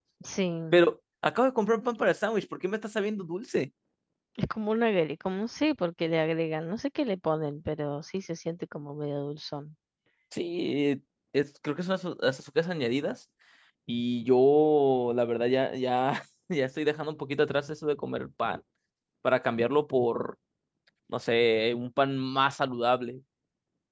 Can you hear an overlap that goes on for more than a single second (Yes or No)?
No